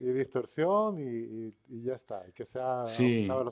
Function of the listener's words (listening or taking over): taking over